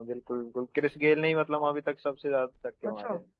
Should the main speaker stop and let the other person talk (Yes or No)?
Yes